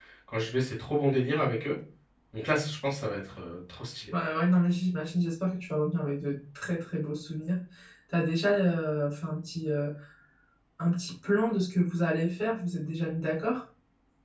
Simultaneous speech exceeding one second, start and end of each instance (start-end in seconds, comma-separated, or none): none